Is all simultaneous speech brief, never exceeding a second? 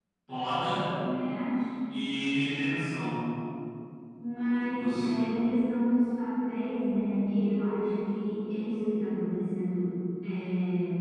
Yes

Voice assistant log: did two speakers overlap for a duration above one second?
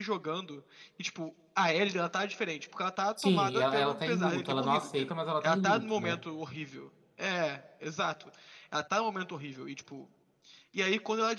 Yes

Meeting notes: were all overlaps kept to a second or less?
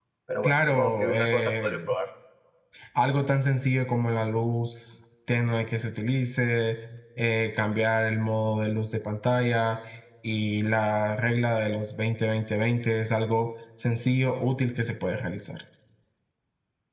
No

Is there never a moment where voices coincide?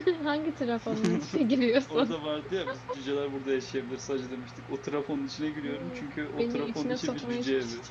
No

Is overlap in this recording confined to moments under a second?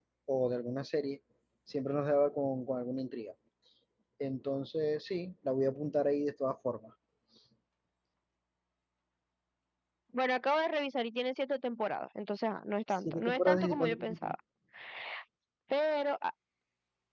No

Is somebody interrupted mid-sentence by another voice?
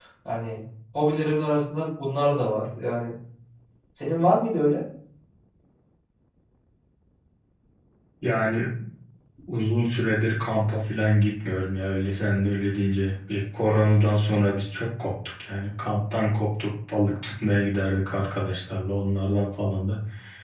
No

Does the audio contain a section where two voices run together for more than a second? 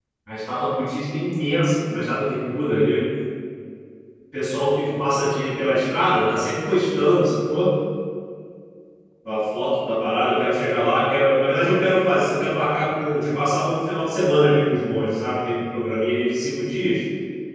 No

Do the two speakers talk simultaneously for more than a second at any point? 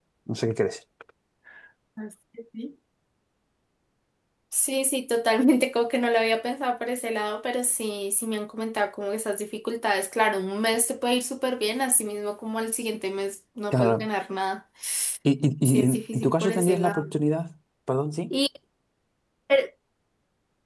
Yes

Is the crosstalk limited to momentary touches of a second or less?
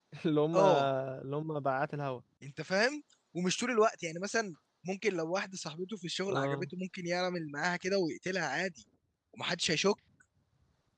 Yes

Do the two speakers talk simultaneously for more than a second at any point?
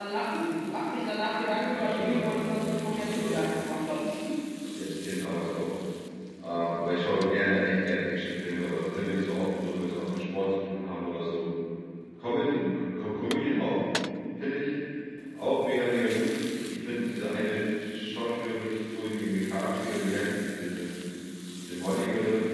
Yes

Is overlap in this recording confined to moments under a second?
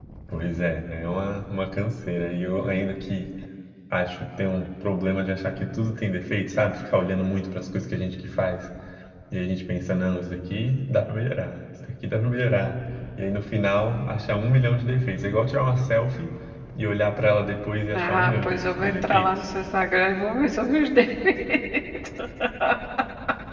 No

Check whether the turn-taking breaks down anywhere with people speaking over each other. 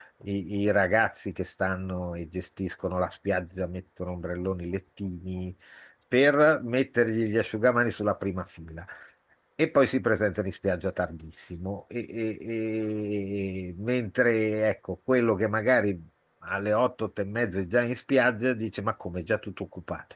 No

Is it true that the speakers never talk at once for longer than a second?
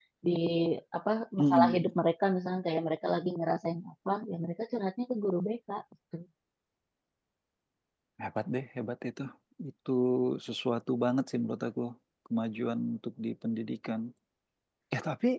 Yes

